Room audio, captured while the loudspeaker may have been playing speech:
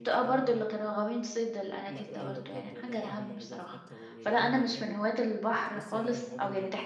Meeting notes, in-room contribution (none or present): present